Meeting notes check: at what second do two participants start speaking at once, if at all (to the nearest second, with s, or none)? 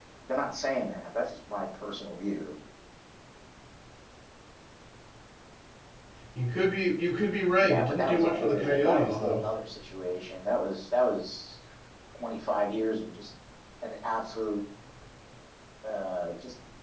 8 s